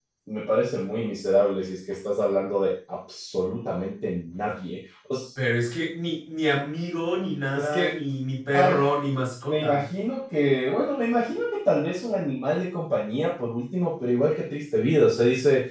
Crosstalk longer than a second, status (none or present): none